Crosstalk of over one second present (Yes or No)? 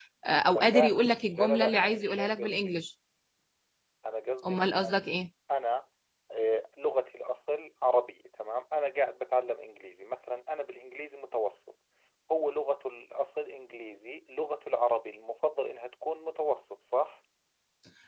Yes